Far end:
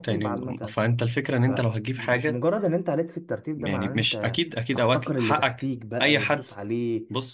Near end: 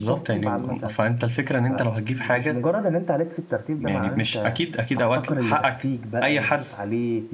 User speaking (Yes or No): No